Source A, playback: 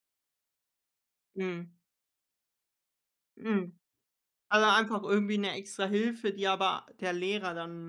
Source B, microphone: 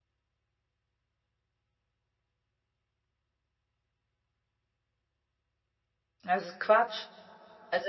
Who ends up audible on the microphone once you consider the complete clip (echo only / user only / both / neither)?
user only